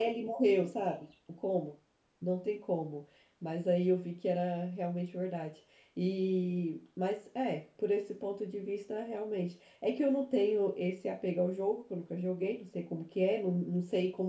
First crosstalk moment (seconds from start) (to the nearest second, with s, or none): none